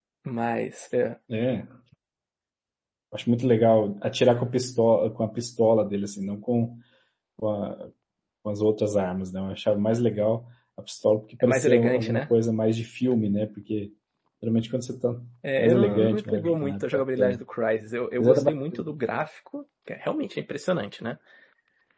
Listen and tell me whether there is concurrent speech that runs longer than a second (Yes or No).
Yes